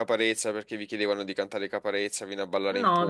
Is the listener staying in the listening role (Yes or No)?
No